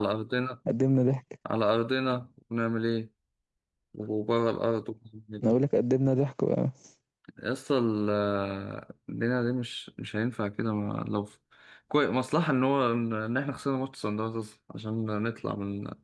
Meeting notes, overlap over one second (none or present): none